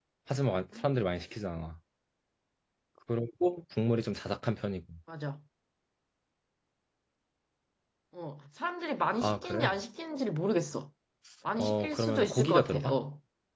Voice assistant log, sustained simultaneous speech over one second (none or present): present